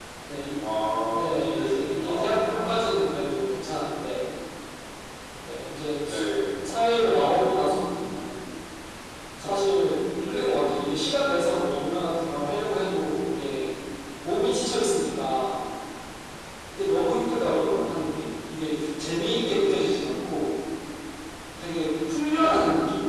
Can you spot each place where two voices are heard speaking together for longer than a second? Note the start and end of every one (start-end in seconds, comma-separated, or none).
1.1-2.8